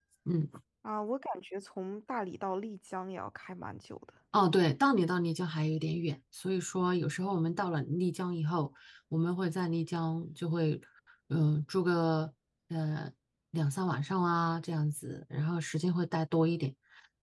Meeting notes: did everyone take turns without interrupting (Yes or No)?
Yes